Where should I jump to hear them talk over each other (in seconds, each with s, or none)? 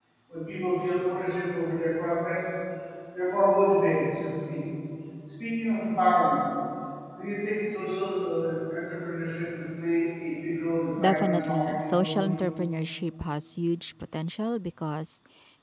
11.0 s